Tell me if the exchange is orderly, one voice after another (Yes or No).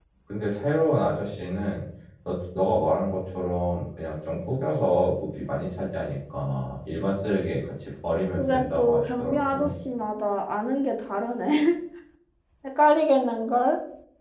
No